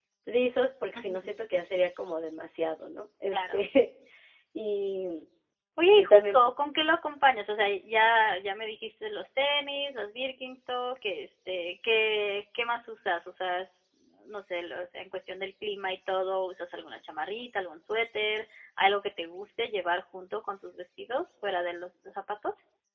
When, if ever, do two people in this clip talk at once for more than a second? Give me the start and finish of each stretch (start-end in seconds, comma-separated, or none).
none